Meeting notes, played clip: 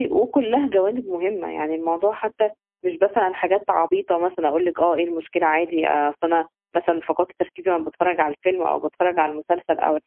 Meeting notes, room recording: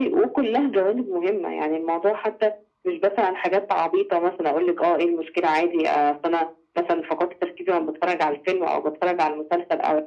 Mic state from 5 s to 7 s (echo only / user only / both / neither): echo only